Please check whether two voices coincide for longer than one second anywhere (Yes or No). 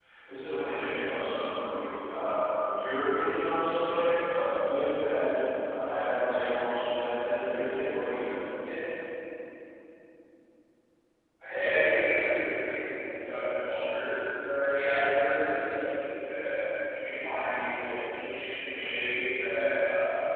No